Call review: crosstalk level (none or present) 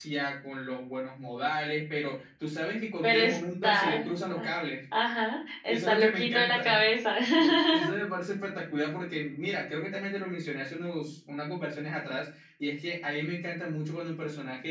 present